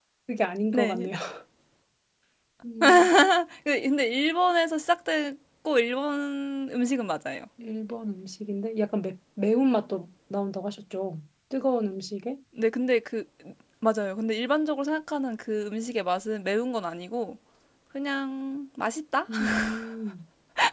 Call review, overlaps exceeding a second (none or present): none